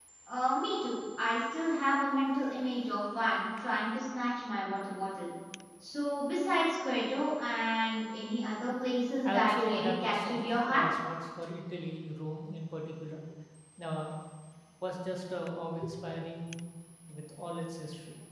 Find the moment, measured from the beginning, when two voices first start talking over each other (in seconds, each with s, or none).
9.2 s